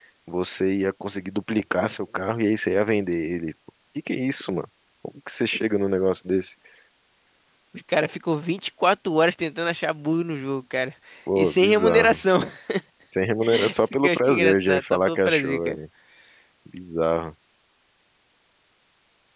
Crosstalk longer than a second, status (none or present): present